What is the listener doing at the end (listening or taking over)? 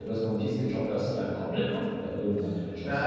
taking over